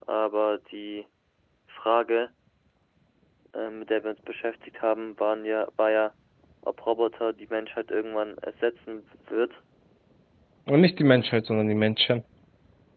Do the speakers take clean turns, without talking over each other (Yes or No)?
Yes